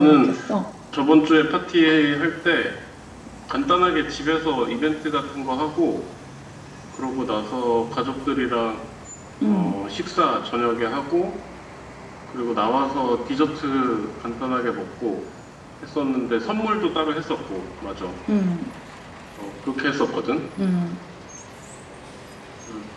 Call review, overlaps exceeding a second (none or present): none